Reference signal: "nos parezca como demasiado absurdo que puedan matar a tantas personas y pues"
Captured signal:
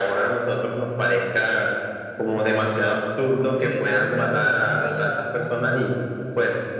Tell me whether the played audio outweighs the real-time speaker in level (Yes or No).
Yes